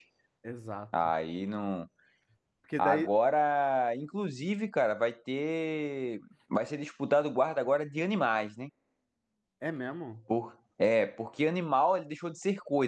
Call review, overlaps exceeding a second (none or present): none